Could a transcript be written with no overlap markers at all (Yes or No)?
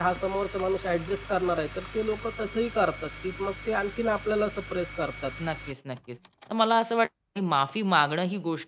Yes